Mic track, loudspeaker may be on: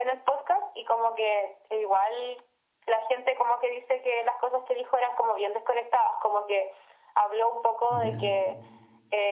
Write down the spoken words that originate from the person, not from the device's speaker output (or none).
Ya.